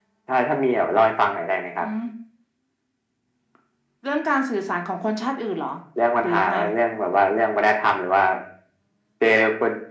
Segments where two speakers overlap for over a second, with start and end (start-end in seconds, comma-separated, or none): none